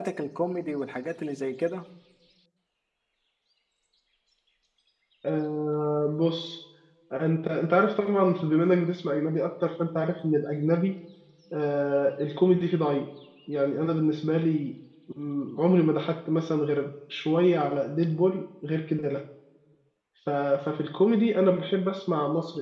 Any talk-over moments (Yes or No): No